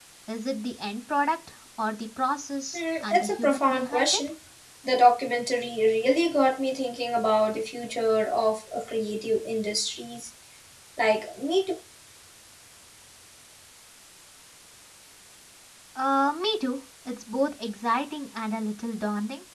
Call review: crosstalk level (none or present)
present